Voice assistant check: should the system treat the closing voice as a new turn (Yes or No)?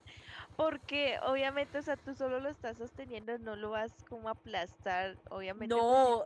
Yes